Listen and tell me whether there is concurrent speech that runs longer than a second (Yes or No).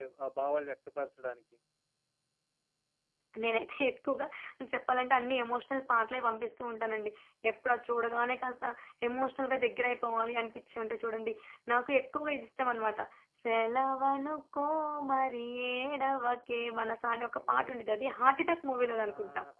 No